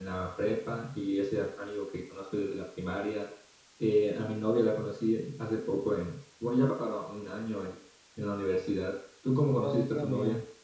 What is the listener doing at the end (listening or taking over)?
taking over